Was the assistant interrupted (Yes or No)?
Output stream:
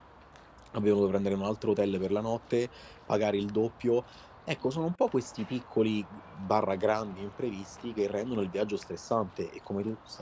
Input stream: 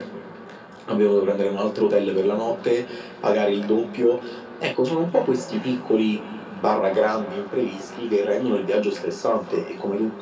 No